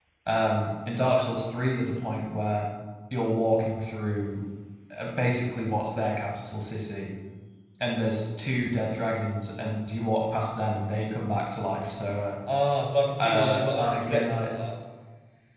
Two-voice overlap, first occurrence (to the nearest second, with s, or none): 13 s